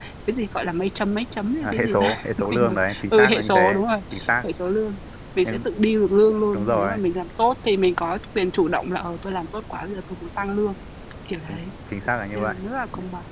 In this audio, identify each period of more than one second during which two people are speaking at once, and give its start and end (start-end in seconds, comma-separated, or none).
1.6-3.6